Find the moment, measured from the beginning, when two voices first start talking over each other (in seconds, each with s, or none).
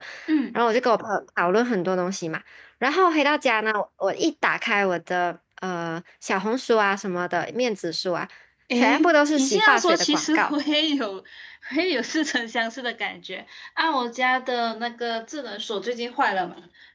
8.8 s